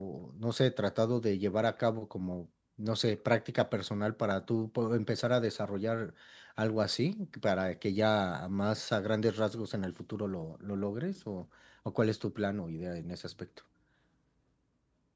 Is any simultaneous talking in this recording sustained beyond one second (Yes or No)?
No